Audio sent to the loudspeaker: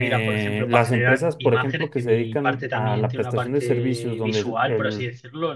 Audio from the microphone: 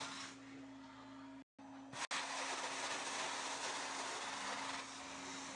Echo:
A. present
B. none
B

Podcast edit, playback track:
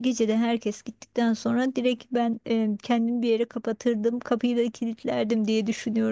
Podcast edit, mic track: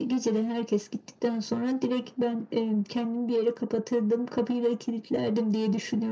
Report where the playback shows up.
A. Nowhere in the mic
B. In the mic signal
B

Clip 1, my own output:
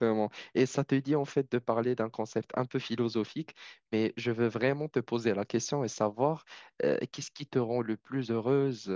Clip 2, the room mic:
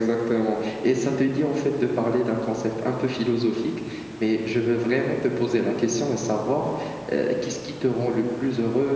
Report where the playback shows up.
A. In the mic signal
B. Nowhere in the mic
A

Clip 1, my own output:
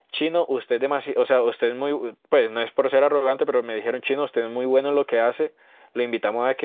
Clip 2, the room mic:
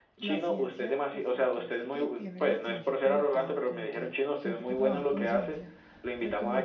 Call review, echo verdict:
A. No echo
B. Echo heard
B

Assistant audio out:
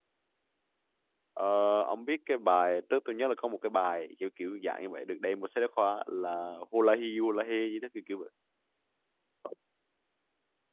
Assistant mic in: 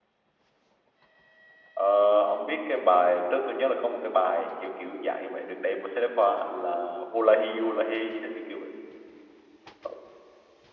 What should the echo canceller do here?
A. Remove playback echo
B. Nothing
A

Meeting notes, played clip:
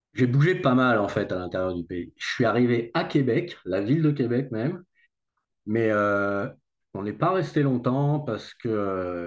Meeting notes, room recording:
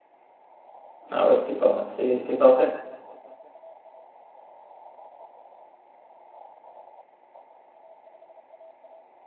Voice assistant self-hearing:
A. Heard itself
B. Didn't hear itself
B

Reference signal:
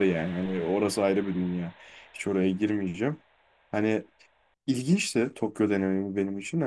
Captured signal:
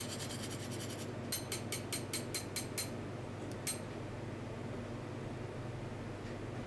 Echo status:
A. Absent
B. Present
A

